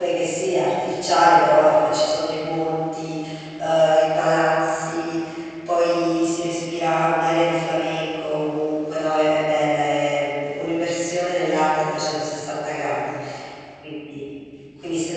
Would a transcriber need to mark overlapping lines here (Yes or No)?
No